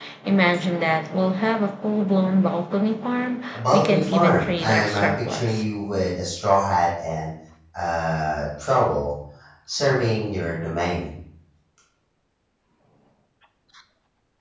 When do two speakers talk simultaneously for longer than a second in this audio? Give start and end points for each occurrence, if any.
3.5-5.6

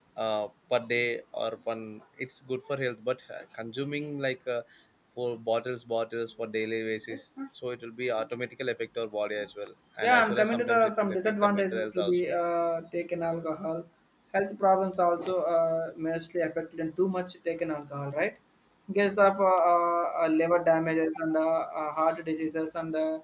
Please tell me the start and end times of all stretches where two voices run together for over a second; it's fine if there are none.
10.0-12.3

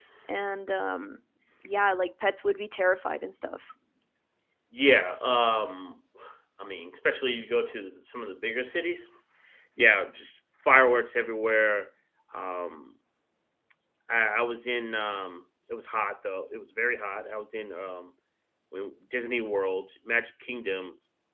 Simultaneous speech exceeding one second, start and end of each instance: none

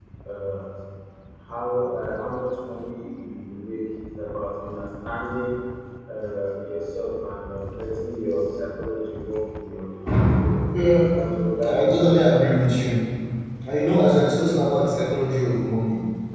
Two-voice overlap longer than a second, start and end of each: 11.7-12.9

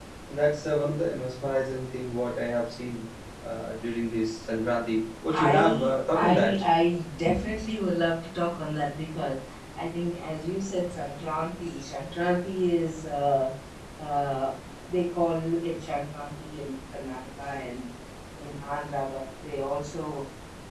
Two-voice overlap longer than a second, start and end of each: 5.3-6.6

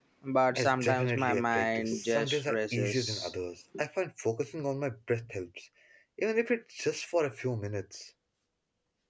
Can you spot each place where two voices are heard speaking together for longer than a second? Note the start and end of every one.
0.6-3.3

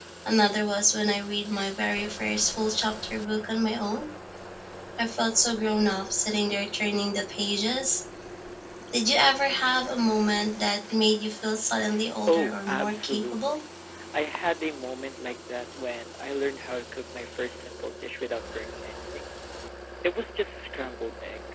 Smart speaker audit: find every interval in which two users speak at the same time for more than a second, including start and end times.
12.3-13.6

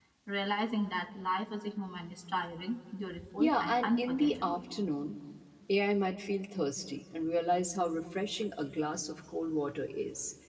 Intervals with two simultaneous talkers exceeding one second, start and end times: 3.4-4.6

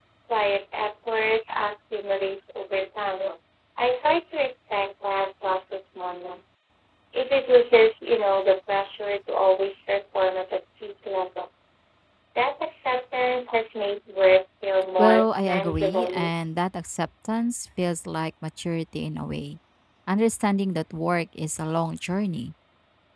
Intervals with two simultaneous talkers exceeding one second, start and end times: 15.0-16.3

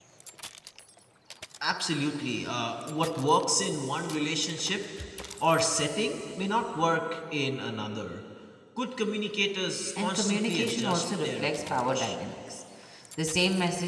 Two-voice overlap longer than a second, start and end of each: 10.0-12.2

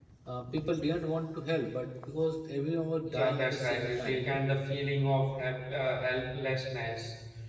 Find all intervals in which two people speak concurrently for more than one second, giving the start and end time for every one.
3.1-4.4

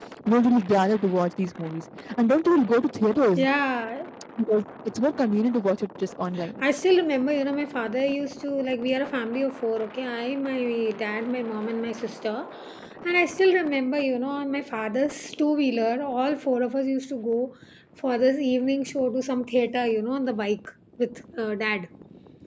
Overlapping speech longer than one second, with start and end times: none

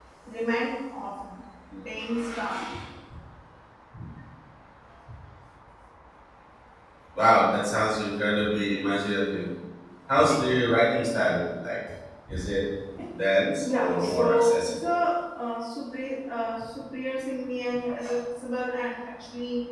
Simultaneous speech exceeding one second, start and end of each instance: 13.6-14.9

